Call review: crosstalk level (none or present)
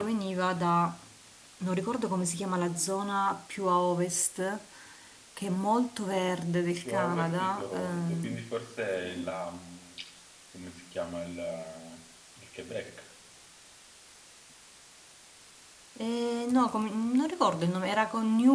present